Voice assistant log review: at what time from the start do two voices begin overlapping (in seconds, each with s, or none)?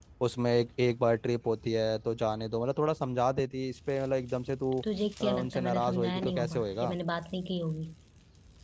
5.2 s